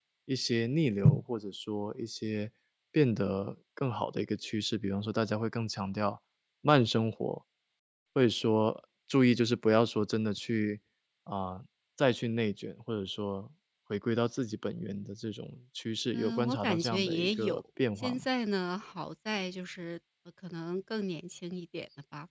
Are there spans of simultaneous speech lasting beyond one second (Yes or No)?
Yes